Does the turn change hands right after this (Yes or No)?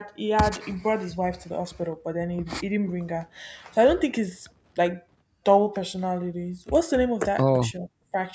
No